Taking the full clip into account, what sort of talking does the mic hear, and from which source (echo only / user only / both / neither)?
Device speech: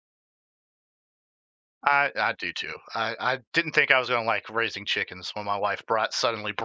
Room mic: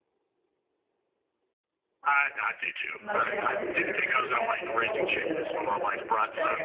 both